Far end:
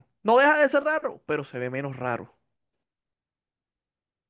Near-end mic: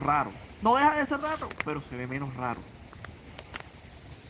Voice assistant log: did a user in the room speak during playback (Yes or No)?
No